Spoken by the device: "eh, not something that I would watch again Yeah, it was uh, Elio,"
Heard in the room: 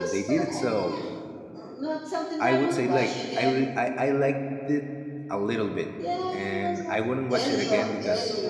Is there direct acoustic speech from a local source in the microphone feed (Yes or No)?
Yes